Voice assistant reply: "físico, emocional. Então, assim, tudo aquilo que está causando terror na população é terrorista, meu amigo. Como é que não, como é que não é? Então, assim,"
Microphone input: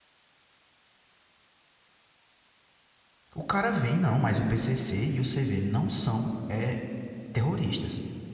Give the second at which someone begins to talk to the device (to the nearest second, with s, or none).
3 s